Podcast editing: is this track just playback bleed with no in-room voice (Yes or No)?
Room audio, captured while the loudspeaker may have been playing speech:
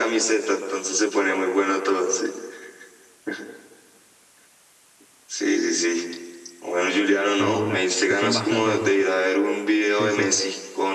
No